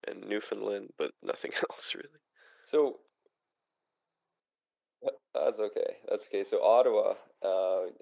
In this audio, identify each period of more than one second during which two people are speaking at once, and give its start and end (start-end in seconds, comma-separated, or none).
none